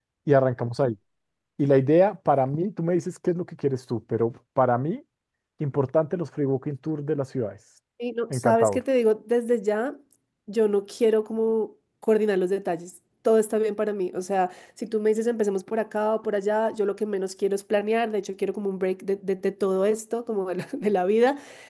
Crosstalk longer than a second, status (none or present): none